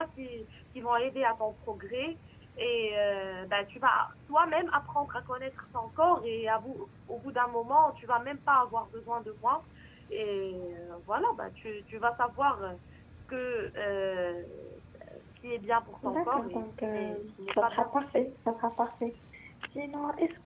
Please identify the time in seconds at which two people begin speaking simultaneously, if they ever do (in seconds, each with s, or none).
16.0 s